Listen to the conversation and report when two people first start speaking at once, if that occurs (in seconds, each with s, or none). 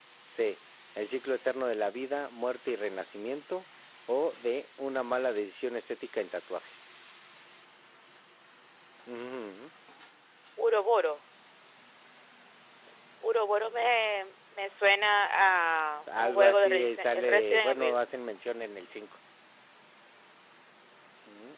16.1 s